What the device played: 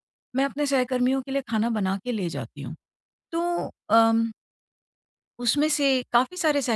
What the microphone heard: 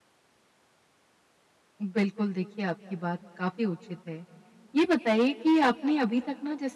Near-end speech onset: 2 s

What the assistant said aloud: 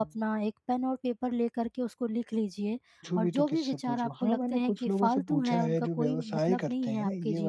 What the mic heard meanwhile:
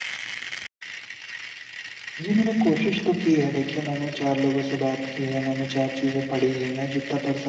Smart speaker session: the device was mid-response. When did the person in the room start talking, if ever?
2 s

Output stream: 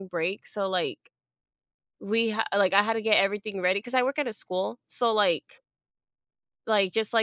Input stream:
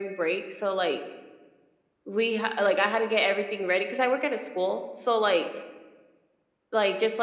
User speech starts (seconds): none

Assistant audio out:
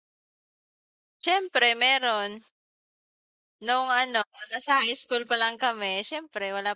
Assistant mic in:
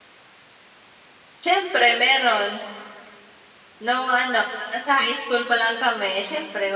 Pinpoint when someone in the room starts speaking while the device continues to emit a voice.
none

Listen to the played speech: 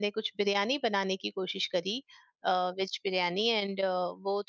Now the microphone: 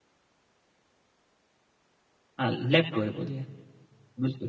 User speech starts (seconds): 2 s

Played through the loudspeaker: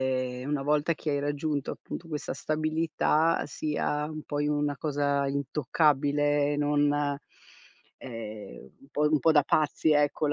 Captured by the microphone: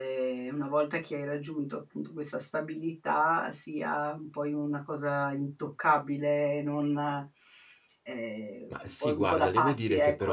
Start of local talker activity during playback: 9 s

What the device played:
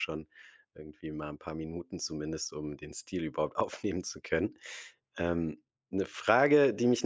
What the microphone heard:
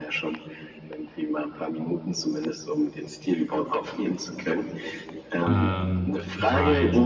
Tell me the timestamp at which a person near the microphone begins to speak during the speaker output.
5 s

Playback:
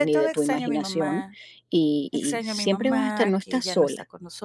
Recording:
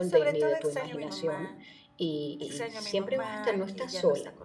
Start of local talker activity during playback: none

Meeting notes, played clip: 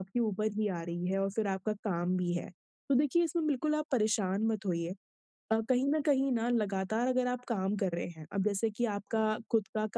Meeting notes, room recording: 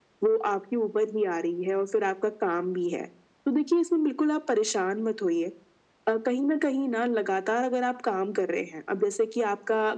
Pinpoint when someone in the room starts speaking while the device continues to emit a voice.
none

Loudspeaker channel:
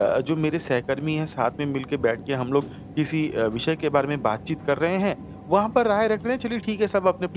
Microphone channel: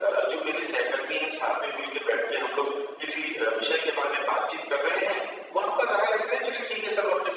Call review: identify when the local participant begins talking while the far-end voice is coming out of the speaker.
none

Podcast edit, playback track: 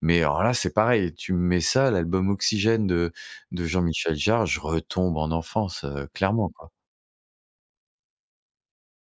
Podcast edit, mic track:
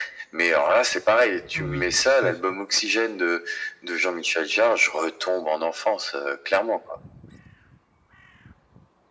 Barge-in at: 2 s

